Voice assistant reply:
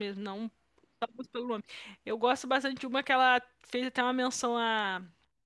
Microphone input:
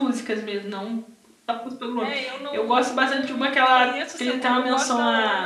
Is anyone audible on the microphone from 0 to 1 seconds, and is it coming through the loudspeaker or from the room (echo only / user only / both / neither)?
echo only